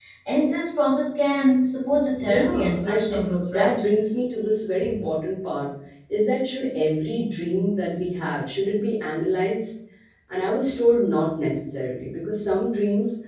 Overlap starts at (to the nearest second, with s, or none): 2 s